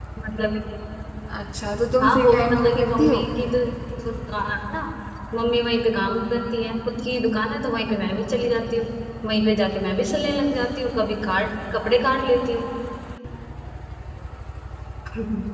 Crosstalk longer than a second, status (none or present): present